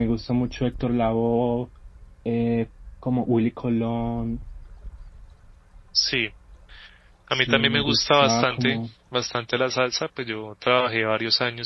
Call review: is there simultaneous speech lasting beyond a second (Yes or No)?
Yes